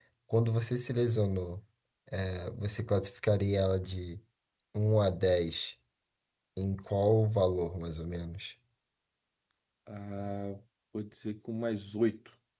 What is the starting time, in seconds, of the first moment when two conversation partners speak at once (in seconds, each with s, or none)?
none